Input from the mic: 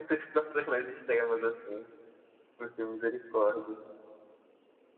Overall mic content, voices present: user only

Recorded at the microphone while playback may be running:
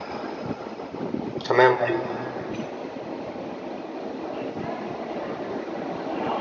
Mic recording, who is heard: user only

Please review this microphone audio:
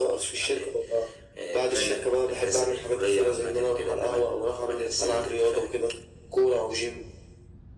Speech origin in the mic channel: echo only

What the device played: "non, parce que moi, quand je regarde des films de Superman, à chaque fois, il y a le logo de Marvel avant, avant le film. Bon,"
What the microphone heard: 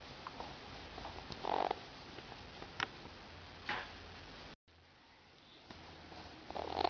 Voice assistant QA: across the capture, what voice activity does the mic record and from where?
neither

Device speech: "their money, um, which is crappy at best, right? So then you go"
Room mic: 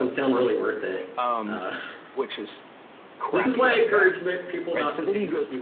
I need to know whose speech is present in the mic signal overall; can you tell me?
both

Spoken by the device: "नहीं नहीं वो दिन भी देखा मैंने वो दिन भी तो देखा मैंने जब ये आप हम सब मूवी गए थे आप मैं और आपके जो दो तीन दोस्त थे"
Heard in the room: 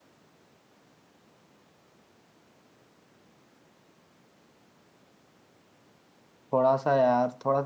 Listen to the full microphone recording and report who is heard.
user only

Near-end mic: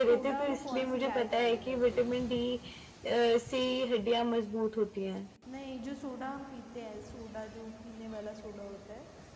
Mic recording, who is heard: both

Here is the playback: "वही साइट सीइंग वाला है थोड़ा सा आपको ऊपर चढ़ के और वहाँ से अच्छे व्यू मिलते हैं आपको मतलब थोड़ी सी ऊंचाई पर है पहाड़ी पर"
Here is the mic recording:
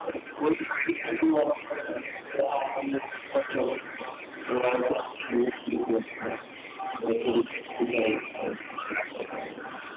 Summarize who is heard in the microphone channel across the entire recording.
echo only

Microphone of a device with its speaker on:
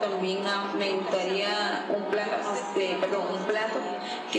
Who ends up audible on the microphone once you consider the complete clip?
both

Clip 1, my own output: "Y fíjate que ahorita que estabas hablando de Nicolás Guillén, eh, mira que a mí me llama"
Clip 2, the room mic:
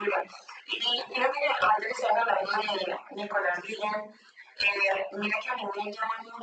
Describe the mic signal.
echo only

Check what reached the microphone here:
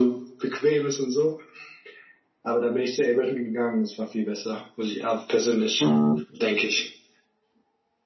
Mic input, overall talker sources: both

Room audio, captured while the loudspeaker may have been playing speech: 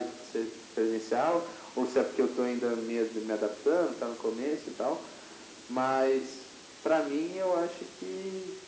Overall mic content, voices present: echo only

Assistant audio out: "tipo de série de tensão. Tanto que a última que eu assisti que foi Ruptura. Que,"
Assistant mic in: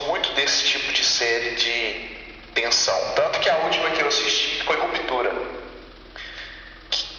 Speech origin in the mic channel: echo only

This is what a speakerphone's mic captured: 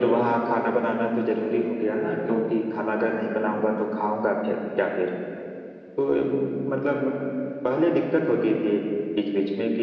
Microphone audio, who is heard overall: echo only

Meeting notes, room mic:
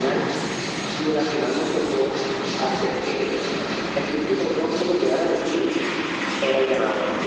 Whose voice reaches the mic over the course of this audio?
echo only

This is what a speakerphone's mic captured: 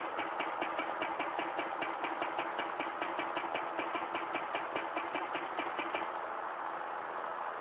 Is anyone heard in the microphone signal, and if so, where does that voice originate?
neither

